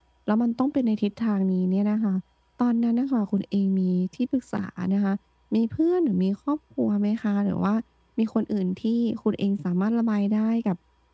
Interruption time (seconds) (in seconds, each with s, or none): none